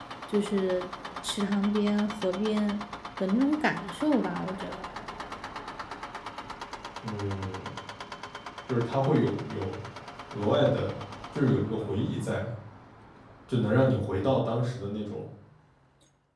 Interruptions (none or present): none